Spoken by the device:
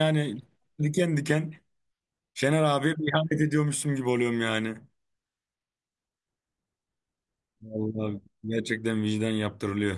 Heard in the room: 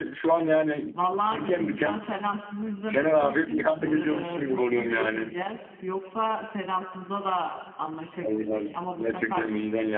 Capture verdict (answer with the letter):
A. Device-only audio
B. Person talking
B